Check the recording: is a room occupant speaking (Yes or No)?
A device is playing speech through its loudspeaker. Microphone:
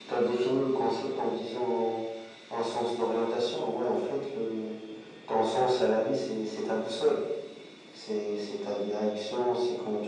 No